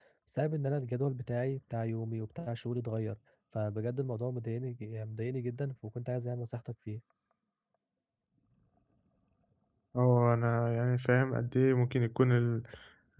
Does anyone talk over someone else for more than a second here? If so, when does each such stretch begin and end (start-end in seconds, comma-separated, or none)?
none